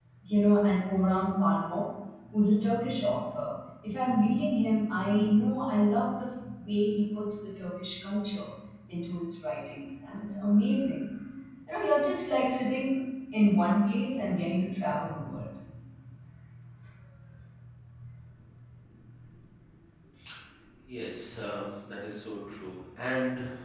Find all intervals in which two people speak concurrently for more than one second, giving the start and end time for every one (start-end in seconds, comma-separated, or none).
none